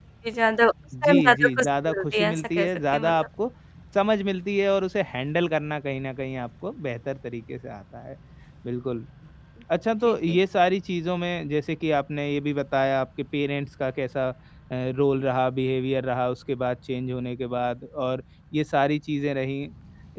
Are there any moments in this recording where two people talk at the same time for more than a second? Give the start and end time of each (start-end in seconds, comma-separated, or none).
1.0-3.1